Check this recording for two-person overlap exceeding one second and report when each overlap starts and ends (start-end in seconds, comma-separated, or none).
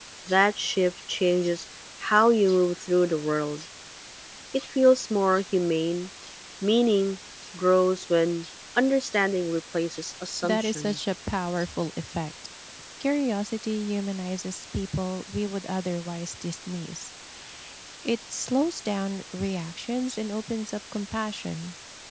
none